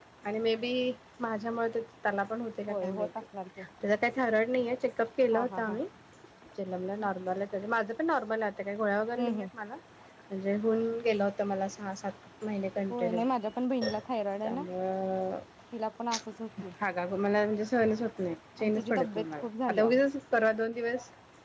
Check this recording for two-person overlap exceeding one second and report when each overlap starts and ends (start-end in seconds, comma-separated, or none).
18.6-19.8